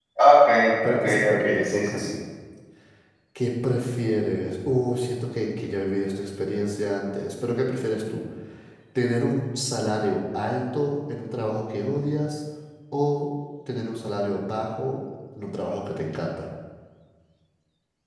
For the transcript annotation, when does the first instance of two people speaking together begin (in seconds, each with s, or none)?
0.8 s